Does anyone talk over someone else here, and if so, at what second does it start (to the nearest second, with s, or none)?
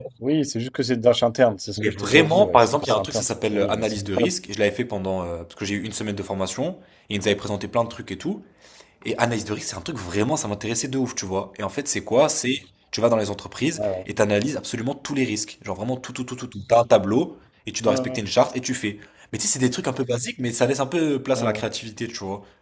2 s